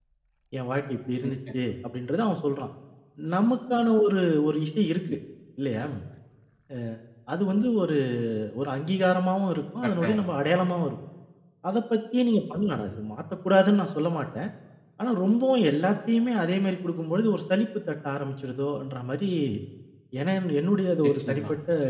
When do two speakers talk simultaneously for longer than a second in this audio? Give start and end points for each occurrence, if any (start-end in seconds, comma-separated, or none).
none